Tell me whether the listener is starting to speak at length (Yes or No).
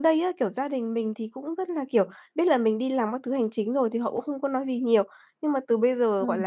No